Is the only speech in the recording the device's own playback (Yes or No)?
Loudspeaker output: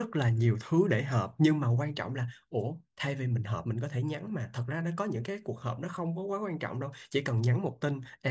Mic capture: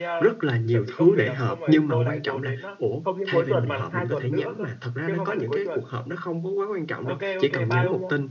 No